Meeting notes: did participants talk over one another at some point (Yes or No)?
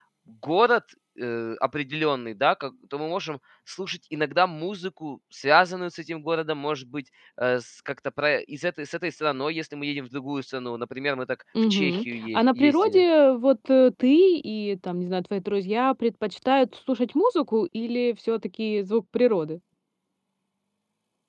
Yes